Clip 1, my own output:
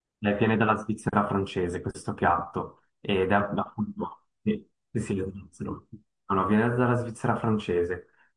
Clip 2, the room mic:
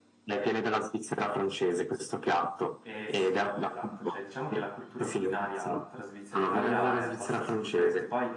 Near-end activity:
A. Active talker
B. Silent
A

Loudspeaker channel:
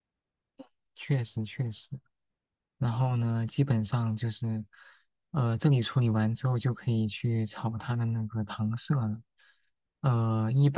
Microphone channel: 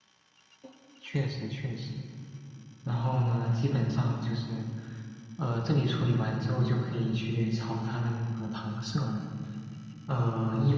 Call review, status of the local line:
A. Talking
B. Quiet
B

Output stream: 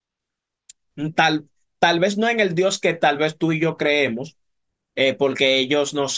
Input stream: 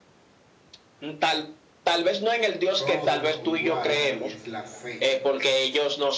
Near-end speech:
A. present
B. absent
A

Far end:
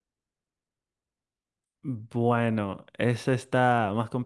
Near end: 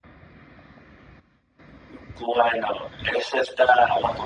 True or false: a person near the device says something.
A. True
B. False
B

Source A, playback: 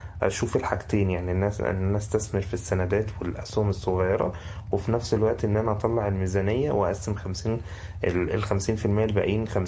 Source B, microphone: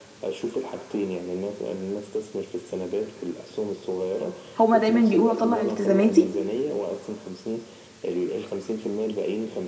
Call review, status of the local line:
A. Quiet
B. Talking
B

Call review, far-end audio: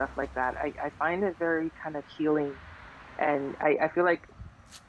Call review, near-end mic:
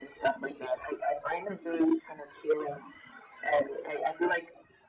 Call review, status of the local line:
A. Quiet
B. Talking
A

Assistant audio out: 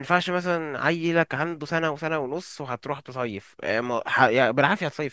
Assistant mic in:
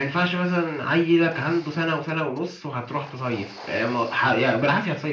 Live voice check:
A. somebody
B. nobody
B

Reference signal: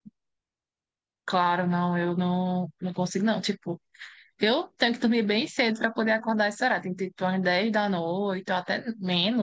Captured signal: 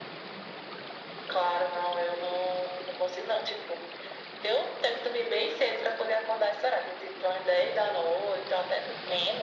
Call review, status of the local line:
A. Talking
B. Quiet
B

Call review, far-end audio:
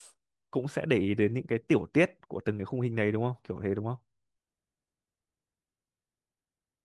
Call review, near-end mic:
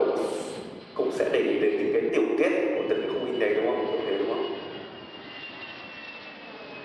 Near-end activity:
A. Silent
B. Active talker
A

